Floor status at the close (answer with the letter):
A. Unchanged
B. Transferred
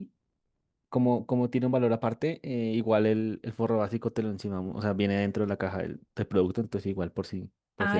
B